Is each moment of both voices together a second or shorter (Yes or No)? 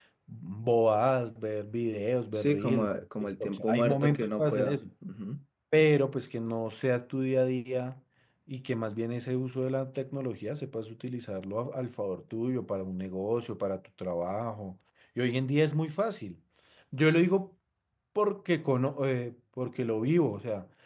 No